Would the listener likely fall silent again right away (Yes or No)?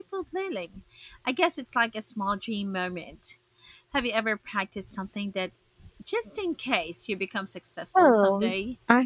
No